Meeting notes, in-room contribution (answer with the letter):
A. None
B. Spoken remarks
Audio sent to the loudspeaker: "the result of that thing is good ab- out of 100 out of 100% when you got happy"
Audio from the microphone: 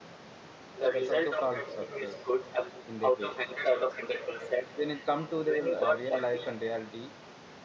B